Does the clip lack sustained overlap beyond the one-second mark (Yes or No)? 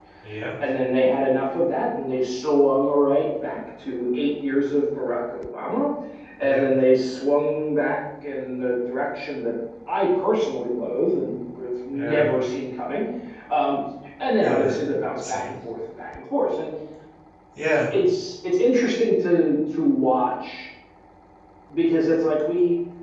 Yes